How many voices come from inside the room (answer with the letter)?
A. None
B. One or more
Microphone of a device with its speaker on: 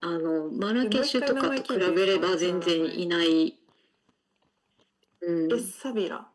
A